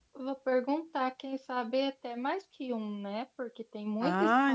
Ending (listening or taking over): taking over